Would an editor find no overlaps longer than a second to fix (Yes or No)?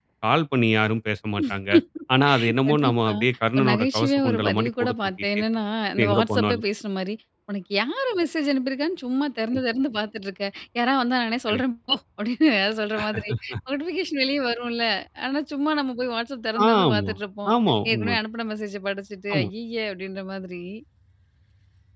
No